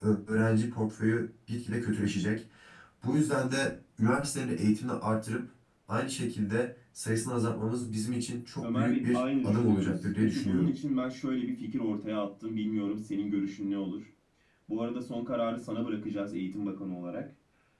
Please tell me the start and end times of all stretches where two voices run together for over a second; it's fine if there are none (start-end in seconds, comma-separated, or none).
8.6-10.7